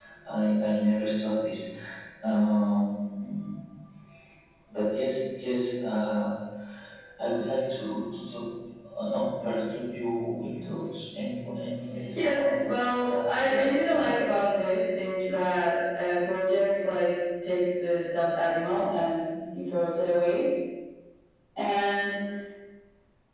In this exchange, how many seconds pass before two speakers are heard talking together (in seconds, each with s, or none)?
12.2 s